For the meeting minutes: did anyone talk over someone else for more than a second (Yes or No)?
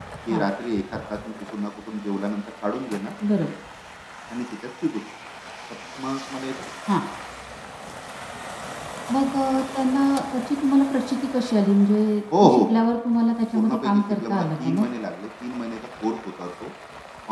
Yes